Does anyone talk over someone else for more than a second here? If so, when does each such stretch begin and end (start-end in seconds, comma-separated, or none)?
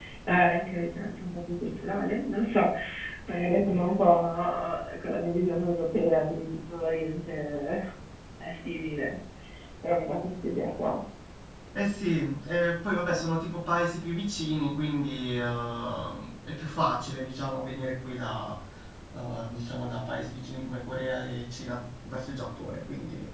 none